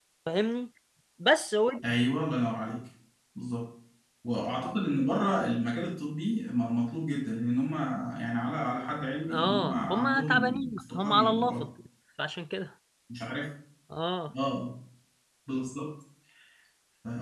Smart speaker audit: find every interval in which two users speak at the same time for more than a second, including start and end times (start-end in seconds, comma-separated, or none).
9.3-11.6